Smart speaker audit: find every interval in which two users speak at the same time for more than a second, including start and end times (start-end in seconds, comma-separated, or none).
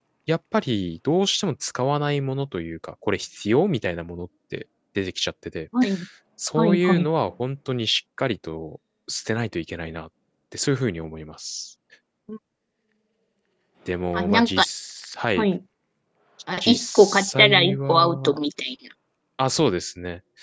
16.6-18.4